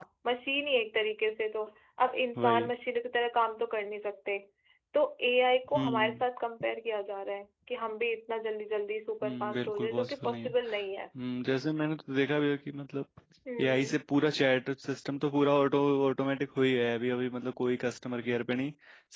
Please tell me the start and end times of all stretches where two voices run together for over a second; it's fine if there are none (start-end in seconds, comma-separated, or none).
9.2-10.5